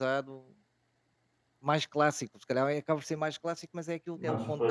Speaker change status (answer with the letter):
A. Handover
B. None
B